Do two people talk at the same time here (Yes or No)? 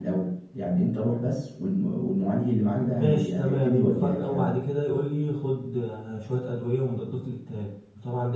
Yes